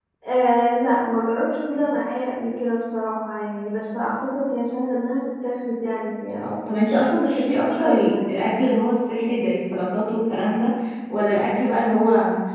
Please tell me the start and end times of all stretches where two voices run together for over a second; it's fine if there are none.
6.4-8.4

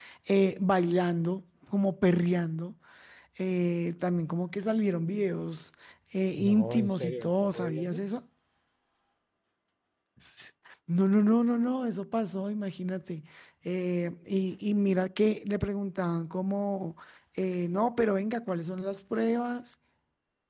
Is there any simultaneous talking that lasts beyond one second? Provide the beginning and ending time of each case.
6.4-8.0

